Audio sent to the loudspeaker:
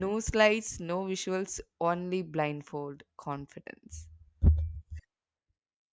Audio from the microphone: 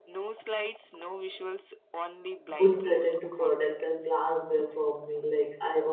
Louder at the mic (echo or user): user